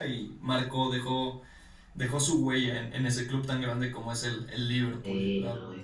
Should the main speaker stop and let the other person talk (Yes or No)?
Yes